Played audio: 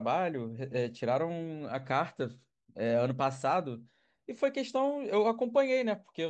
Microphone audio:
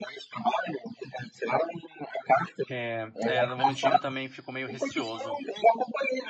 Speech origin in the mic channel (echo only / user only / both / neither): both